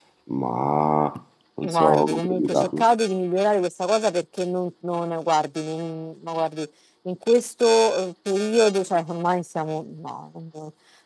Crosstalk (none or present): present